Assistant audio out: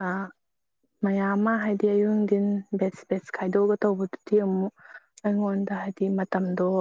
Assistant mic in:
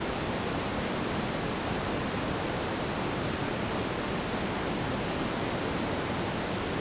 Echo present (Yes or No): No